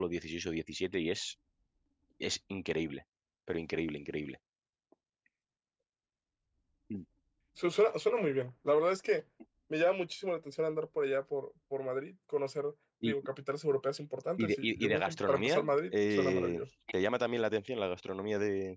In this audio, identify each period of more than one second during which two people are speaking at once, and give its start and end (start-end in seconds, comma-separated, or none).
14.4-16.6